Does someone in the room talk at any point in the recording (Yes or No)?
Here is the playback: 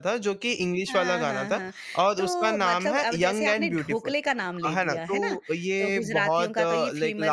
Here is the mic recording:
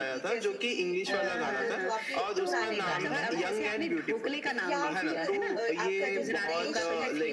Yes